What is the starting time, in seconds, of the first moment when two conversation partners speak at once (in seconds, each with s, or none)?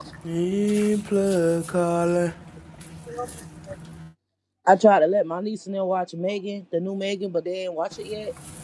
none